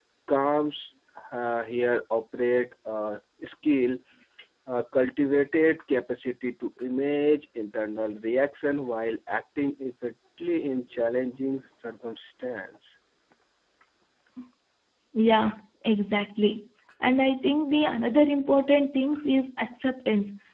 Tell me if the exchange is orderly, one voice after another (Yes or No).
Yes